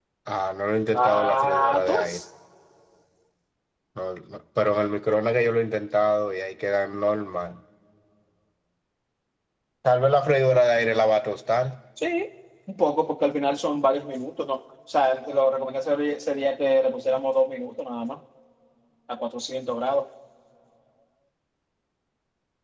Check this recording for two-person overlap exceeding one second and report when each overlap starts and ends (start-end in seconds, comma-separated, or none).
0.9-2.2